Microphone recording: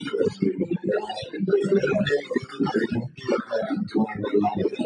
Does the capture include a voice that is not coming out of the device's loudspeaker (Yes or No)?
No